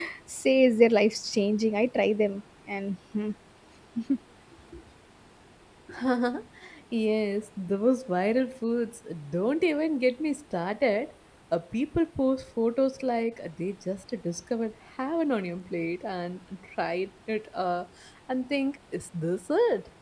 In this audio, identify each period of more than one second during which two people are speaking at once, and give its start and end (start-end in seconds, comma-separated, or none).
none